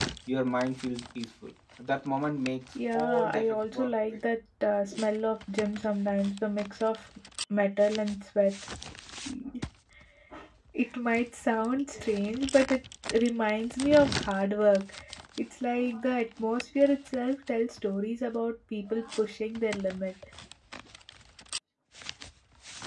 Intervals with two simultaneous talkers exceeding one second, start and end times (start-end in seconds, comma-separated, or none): 2.9-4.2